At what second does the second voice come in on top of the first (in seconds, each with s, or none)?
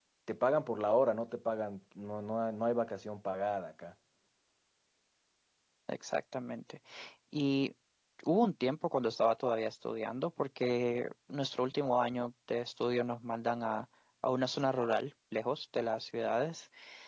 none